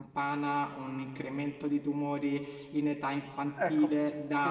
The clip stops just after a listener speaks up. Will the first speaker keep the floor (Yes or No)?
Yes